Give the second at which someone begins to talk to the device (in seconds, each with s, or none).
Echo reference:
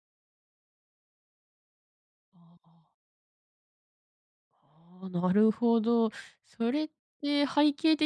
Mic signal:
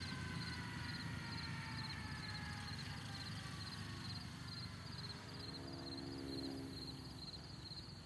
none